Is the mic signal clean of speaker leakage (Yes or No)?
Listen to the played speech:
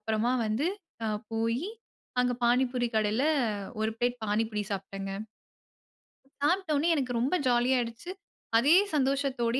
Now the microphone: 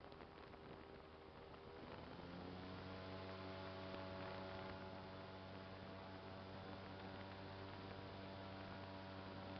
Yes